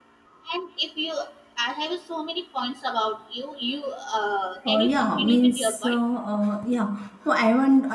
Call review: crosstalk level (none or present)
present